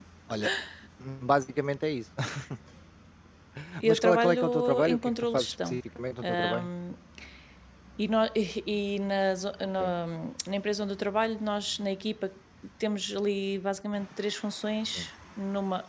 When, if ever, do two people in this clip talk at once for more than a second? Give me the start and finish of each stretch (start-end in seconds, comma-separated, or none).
3.8-5.8